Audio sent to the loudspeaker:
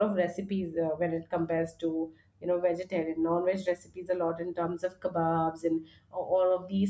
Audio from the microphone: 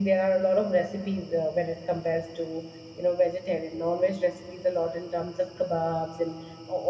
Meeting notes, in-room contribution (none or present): none